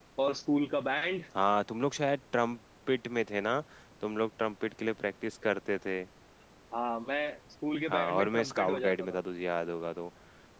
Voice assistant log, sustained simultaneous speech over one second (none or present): present